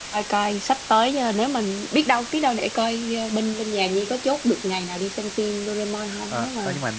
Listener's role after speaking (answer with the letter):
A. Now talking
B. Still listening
A